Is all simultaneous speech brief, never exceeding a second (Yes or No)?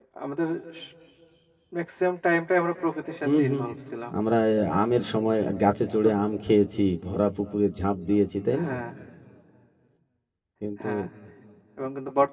Yes